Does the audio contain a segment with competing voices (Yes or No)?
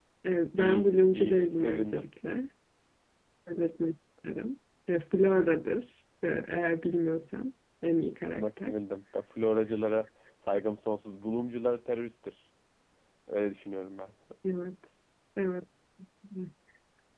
Yes